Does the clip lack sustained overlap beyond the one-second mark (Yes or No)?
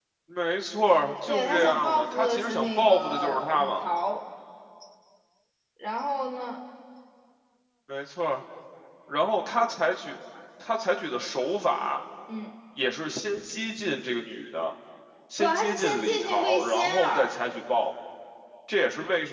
No